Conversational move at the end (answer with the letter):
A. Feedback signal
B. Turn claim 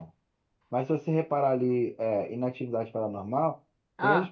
A